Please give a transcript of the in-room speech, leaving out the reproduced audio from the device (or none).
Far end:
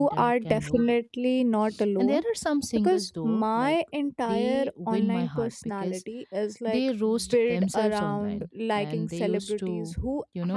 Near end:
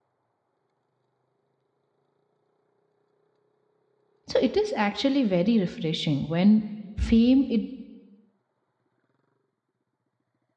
so it is actually very refreshing when fame it